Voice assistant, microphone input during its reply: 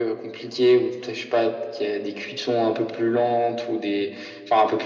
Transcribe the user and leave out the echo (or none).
none